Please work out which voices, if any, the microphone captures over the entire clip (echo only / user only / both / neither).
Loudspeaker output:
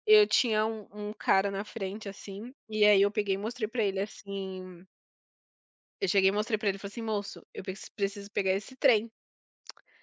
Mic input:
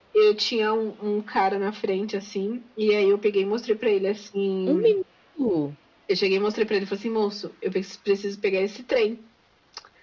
both